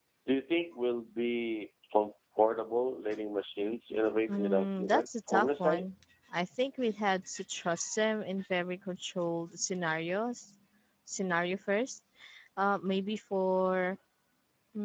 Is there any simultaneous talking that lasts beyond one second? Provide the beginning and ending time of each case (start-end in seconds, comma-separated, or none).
4.4-5.8